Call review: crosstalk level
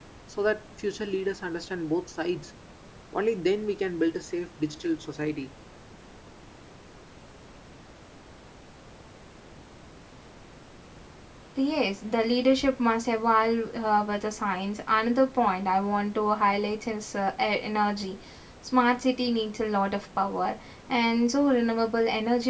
none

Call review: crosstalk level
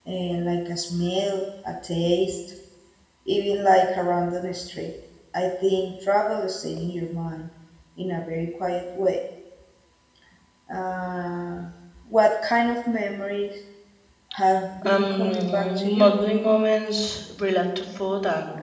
present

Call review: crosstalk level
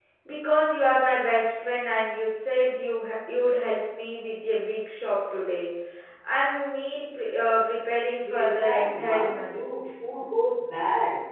present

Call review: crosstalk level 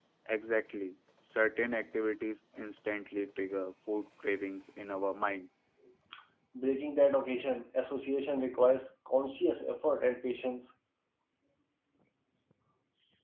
none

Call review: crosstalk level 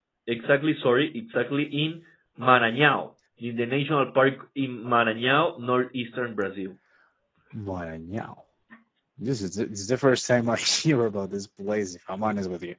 none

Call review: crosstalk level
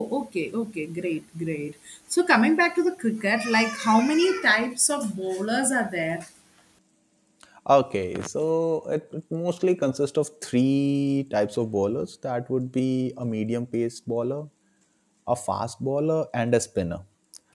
none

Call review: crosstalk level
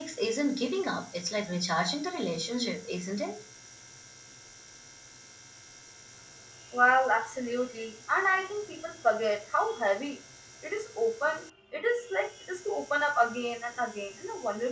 none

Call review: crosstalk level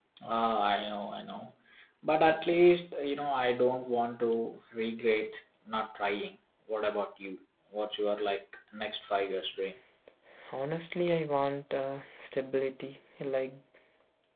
none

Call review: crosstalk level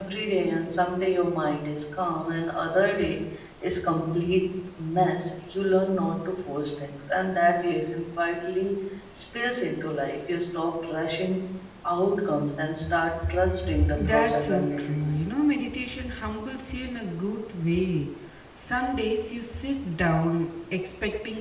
present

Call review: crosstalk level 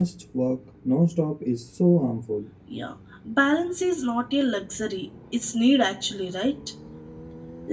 none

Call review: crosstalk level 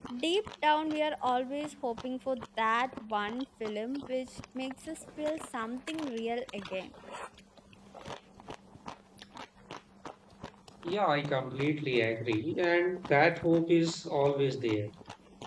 none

